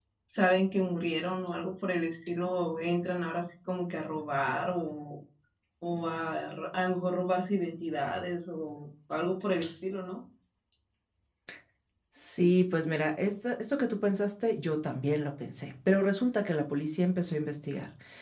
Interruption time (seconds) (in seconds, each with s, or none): none